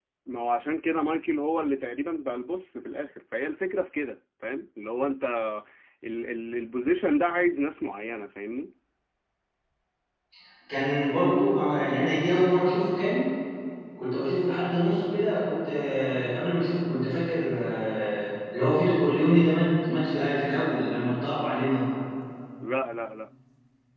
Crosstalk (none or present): none